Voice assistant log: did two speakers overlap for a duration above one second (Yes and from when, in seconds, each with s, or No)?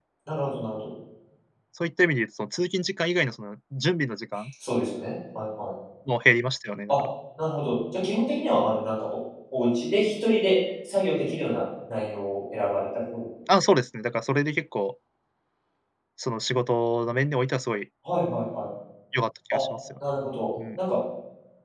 No